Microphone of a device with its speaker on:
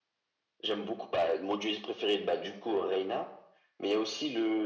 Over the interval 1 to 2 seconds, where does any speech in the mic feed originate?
echo only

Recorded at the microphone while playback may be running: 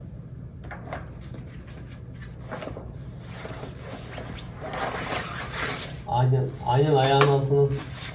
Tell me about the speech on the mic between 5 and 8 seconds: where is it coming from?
user only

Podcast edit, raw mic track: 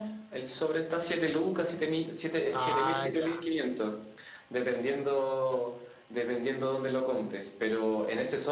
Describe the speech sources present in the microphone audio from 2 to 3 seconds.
both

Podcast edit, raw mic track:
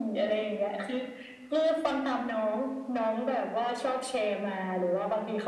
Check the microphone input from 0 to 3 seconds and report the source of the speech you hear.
echo only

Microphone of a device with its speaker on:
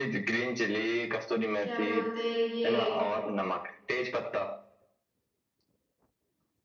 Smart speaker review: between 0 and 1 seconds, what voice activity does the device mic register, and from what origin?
echo only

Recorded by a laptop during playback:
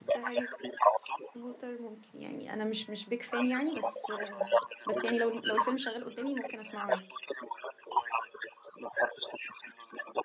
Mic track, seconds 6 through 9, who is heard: both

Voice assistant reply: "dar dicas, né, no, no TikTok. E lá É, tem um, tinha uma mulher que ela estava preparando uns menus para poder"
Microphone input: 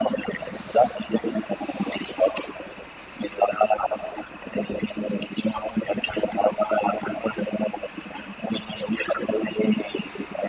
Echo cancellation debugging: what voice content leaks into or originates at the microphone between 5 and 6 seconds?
echo only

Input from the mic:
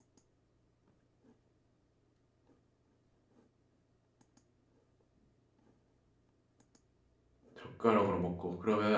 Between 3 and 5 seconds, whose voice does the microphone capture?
neither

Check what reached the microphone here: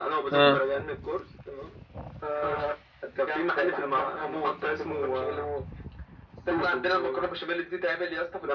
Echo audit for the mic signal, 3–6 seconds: echo only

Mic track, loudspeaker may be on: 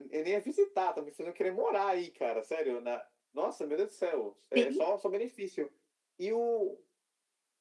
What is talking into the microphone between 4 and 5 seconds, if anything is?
both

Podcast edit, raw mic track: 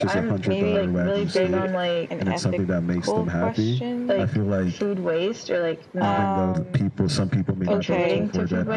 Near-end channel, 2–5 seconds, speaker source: both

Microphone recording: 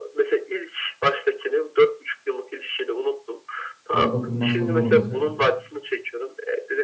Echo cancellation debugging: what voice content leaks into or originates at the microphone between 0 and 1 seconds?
echo only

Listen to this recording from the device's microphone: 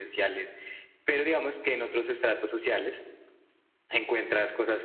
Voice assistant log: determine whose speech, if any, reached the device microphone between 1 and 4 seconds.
echo only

